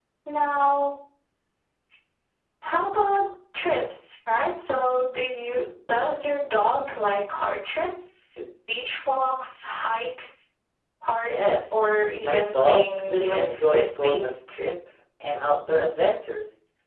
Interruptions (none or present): present